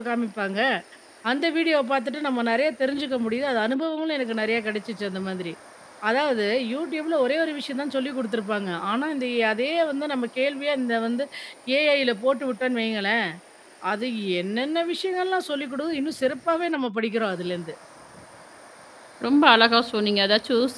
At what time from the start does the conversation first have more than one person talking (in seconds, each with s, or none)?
none